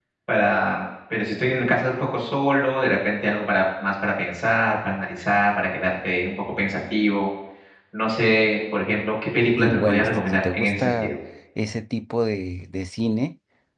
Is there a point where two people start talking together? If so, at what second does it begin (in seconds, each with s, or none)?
9.6 s